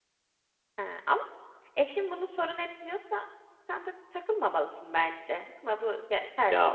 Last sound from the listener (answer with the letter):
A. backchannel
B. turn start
B